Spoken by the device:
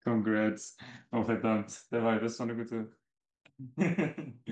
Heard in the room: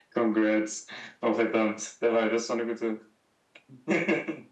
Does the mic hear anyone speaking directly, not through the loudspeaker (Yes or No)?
No